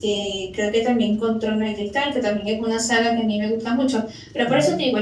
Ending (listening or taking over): listening